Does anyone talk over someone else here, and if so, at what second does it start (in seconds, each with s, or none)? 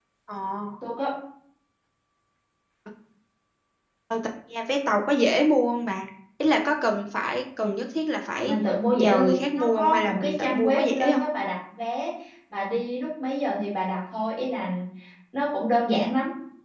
8.9 s